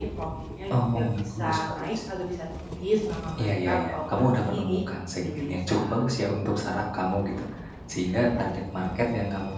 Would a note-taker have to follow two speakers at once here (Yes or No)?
Yes